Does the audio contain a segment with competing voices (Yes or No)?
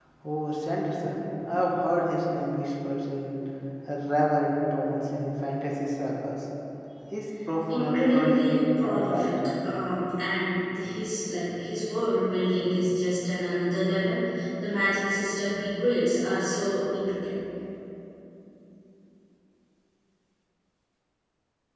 Yes